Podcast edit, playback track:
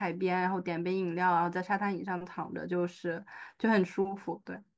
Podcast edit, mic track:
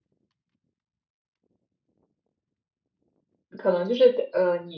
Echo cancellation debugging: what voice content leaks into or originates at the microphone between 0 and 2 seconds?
neither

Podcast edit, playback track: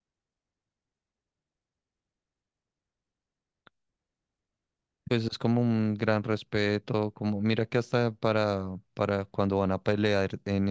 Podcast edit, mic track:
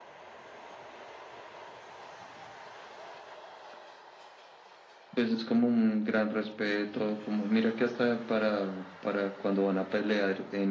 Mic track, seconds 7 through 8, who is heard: echo only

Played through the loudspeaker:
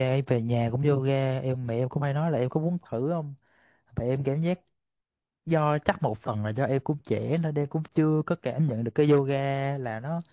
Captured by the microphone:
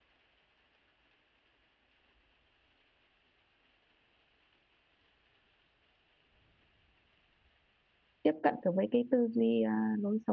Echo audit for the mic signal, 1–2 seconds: neither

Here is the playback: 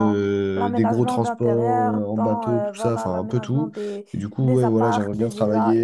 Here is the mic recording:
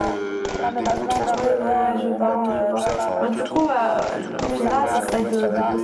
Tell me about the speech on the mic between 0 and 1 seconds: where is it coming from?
echo only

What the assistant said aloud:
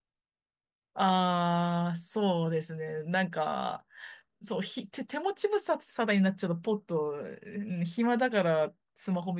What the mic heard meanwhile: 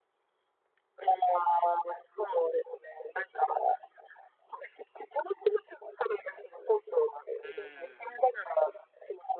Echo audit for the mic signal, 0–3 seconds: echo only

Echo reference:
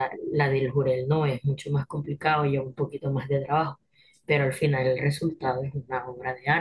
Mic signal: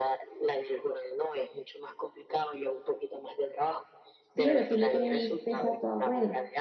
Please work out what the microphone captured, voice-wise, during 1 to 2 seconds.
echo only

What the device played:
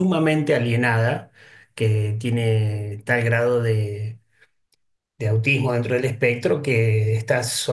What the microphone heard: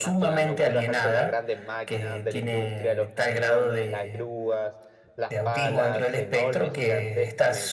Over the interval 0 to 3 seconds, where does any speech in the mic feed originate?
both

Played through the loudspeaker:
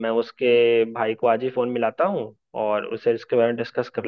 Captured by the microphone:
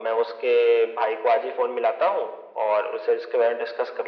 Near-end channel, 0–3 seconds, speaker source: echo only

